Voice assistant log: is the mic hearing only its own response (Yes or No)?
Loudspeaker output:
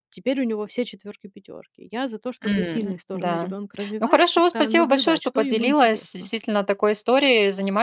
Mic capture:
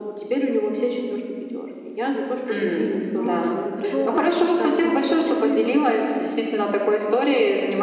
No